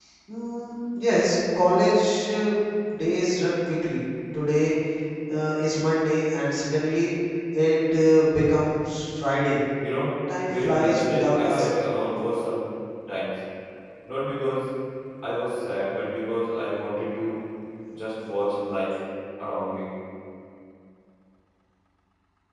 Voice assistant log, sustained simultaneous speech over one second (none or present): present